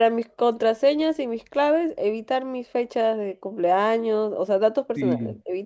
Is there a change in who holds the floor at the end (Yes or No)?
Yes